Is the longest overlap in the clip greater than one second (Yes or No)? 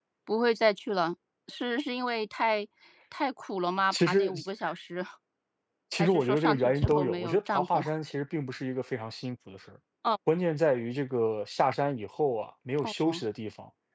Yes